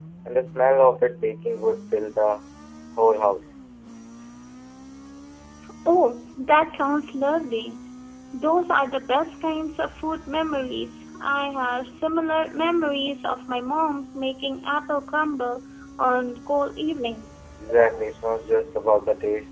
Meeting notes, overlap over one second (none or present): none